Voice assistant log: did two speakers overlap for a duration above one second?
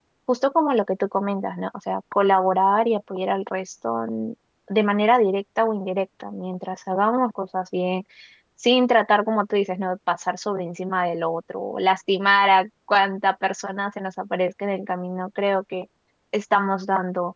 No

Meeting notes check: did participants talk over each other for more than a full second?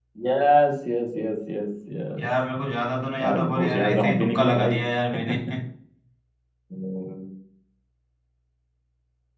Yes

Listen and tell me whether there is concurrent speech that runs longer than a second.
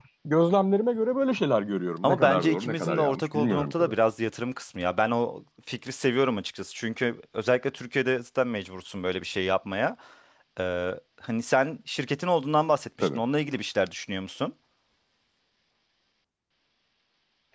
Yes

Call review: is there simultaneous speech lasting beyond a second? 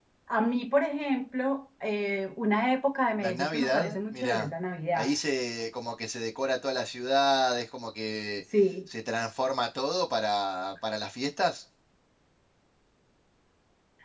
Yes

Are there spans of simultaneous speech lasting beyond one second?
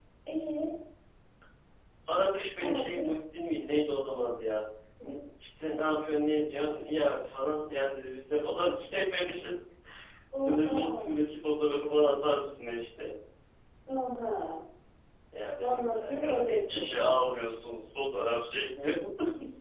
Yes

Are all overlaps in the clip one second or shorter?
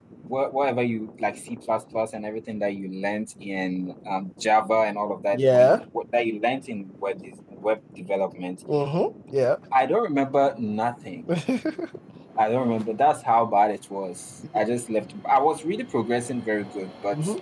Yes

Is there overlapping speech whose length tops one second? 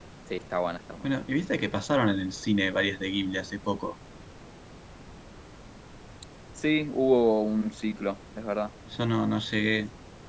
No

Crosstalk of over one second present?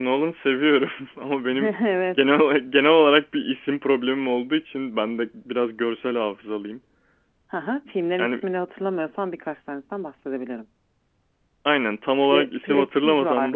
Yes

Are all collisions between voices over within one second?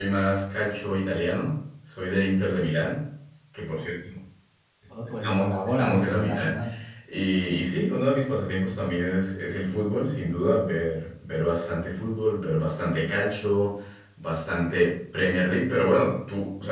No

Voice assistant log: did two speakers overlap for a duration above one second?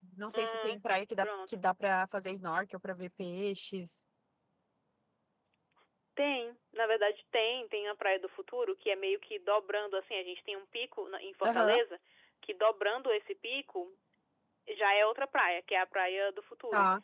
No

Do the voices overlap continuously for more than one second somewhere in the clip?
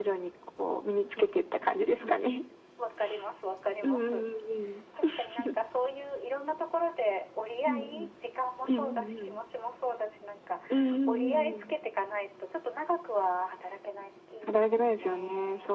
Yes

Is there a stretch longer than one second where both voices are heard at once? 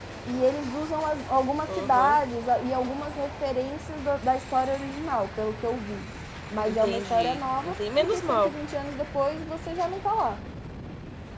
Yes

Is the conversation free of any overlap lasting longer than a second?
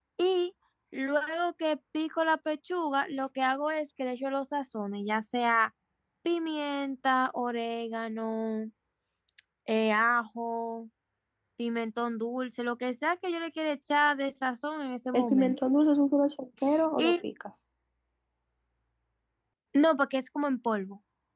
Yes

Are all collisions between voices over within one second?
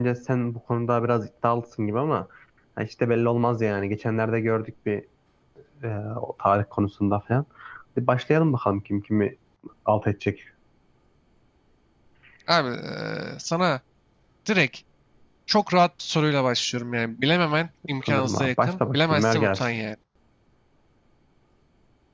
No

